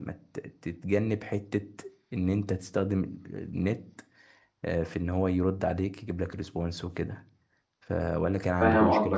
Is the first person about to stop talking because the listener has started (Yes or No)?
Yes